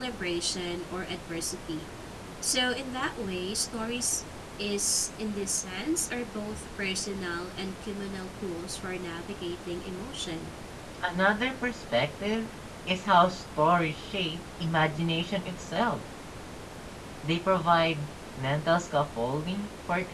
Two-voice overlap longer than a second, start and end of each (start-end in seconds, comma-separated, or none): none